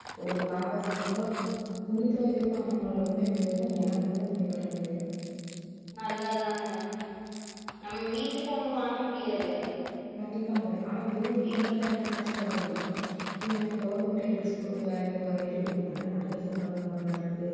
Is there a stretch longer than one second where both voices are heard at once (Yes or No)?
No